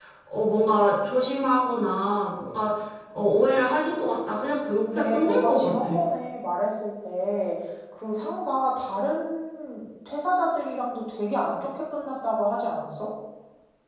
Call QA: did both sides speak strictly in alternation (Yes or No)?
No